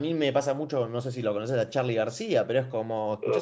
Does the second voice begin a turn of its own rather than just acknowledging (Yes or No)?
No